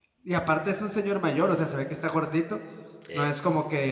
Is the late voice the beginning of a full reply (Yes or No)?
No